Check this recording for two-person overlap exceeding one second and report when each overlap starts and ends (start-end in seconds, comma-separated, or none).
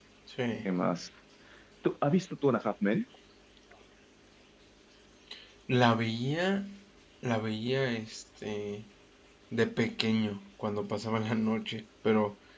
none